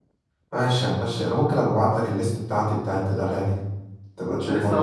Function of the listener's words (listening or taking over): taking over